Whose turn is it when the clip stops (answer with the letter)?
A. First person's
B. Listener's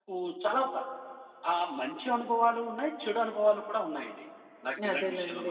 B